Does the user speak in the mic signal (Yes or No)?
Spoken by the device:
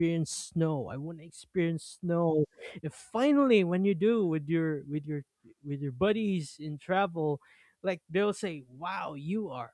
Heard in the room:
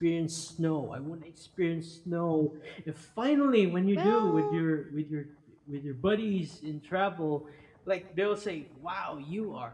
Yes